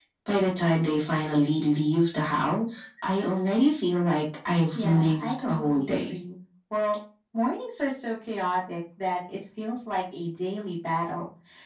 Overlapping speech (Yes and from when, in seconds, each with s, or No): Yes, from 4.8 s